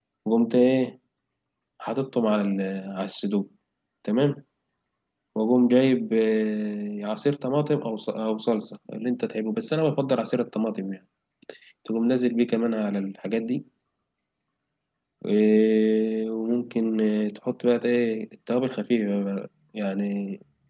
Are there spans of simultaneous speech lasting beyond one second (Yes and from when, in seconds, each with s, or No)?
No